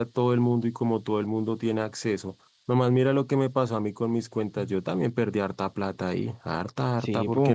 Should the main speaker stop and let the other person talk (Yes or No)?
No